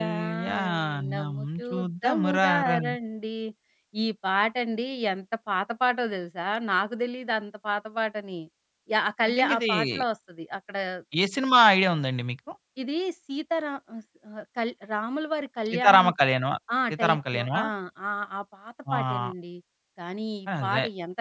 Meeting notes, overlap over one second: present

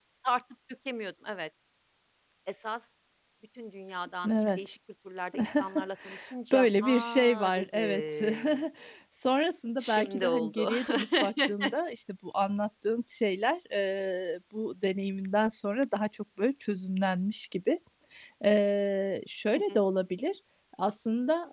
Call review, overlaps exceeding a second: present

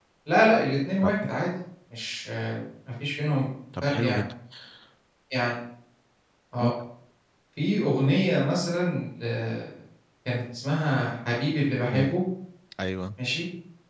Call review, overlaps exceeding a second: none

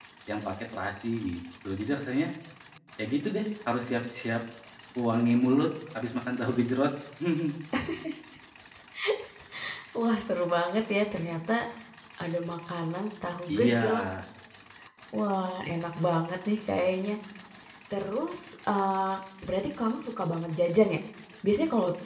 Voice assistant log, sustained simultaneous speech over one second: none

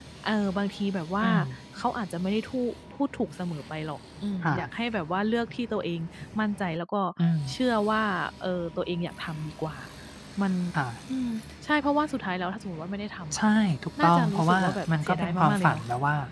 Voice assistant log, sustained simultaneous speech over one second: present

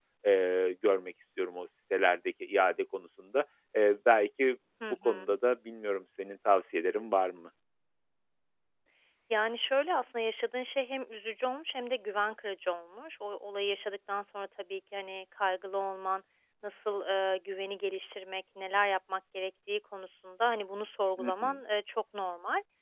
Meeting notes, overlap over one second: none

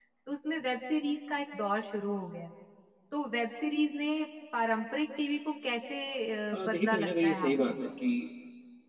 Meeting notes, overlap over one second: present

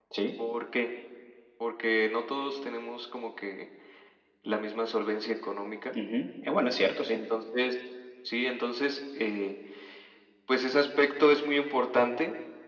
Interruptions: none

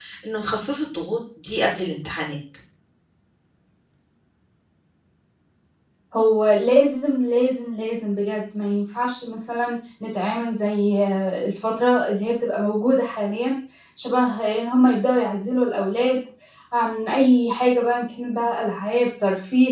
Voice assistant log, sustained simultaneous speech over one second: none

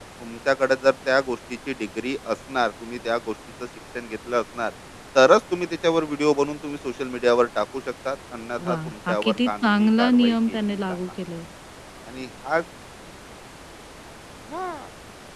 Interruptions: present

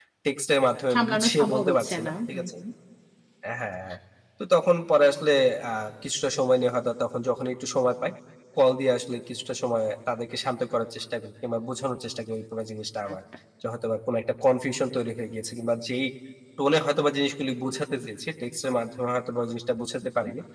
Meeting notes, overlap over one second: present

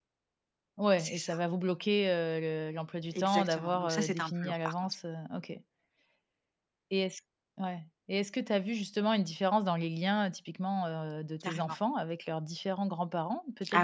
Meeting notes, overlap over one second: present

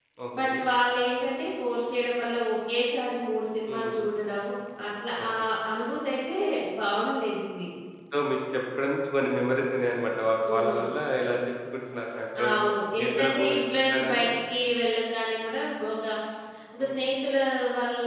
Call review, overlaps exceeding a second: present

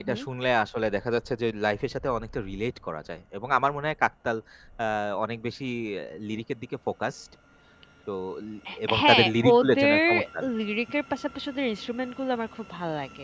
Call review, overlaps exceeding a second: present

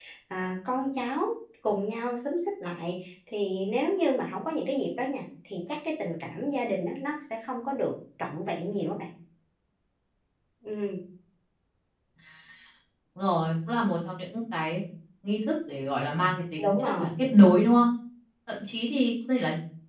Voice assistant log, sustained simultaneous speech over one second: none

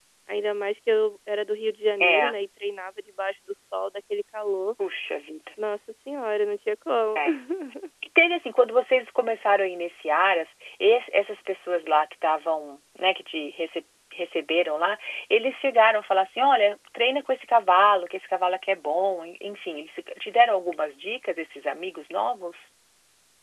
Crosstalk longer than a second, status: none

